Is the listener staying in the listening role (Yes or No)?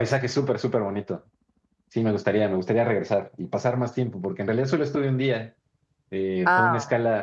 Yes